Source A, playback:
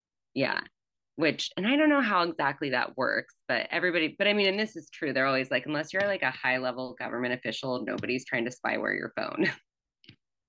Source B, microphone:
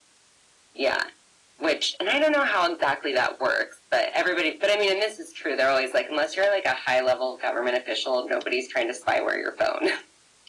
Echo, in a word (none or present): present